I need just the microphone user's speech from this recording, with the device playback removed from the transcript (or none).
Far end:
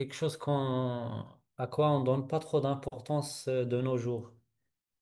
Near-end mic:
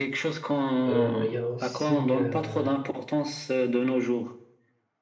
Euh, Il y a aussi. euh,